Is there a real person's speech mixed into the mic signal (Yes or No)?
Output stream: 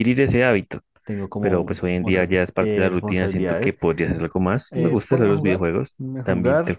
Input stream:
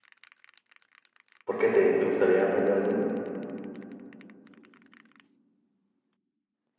Yes